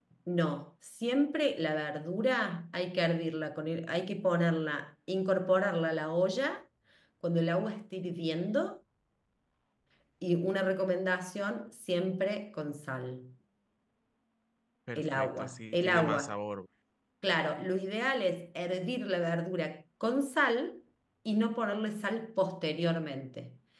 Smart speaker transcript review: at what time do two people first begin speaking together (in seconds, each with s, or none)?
15.0 s